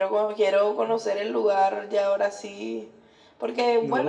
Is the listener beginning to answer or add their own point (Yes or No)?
No